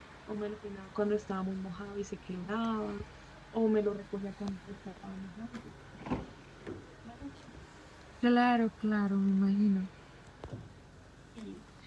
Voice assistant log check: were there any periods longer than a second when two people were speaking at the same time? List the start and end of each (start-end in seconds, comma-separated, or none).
none